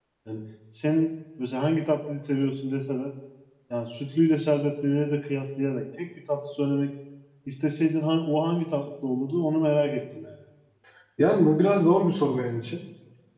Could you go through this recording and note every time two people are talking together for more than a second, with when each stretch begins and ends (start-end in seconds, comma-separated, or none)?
none